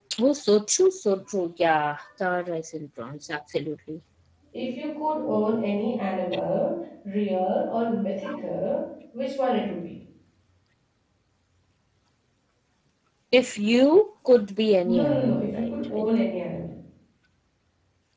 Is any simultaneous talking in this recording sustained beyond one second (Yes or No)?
Yes